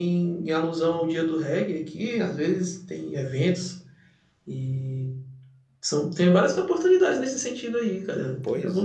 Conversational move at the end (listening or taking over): taking over